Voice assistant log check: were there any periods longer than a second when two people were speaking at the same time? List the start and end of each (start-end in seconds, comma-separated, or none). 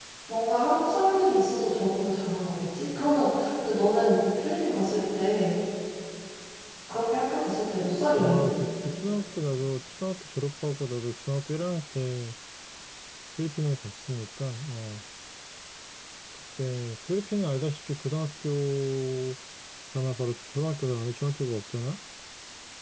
none